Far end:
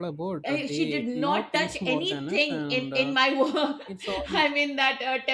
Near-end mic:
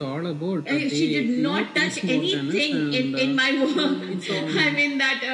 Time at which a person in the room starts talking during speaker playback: 3.7 s

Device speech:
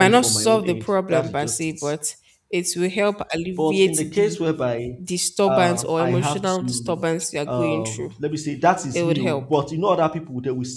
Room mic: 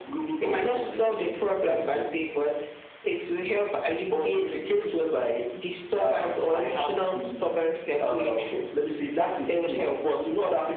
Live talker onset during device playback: none

